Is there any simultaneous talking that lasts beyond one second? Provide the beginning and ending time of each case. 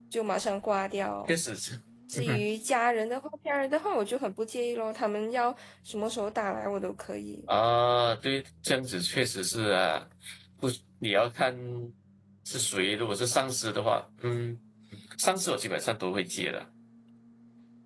none

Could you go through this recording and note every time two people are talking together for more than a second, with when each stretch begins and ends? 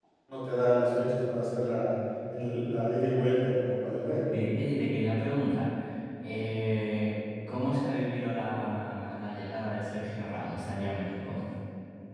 none

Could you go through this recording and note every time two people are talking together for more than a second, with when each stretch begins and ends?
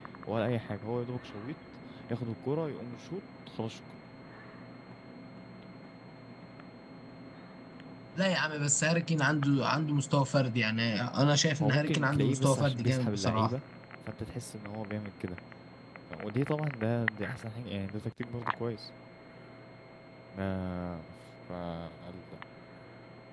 11.6-13.5

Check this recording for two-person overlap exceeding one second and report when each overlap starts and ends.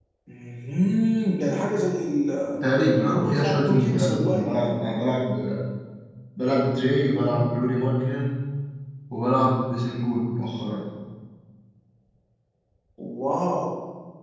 3.1-4.8

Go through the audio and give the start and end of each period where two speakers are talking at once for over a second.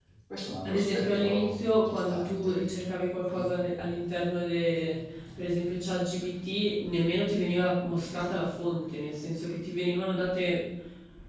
0.6-2.6

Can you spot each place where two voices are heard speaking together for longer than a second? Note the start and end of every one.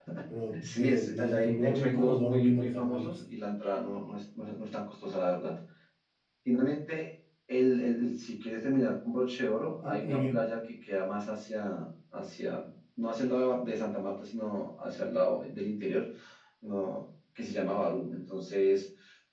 0.6-3.1

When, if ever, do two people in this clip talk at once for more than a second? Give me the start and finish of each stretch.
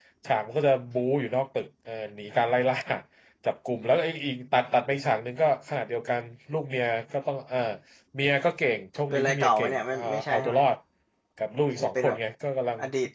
9.1-10.6

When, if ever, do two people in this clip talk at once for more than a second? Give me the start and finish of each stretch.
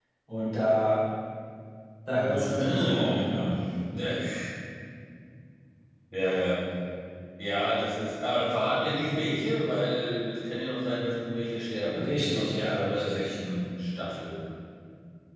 2.1-3.5, 11.9-13.3

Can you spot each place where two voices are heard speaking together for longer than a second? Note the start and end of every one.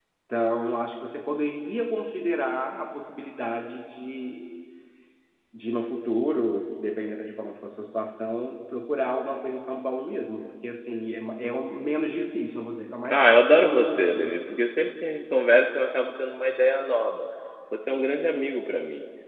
13.1-14.4

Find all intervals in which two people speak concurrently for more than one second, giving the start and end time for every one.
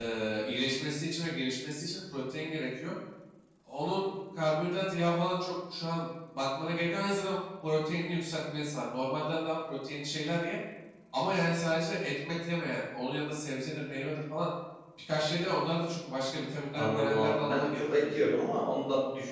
16.7-18.2

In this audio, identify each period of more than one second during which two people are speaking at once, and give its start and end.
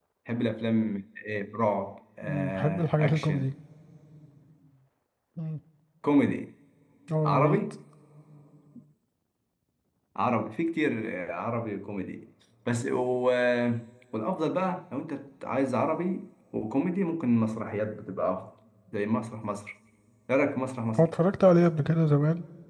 2.2-3.5

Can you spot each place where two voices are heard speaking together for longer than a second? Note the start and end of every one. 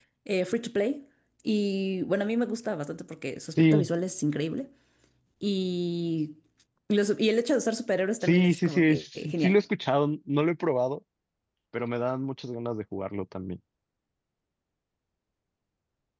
8.2-9.6

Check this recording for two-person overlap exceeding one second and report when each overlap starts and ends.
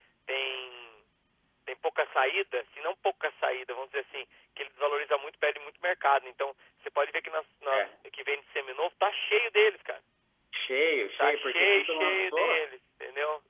11.2-12.7

